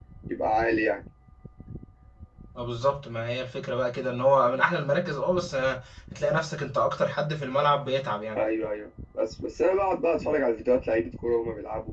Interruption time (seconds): none

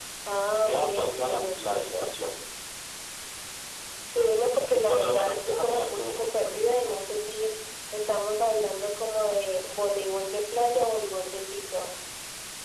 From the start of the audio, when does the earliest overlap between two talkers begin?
1 s

